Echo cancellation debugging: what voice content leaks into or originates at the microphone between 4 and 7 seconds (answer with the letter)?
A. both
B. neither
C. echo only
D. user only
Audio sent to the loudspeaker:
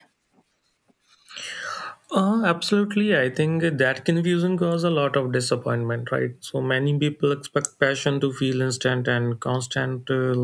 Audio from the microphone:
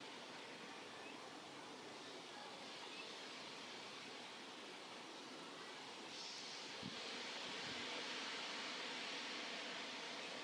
B